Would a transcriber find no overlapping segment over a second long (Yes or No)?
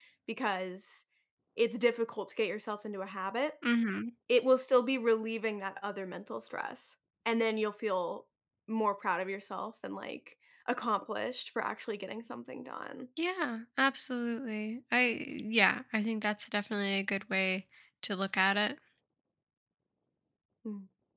Yes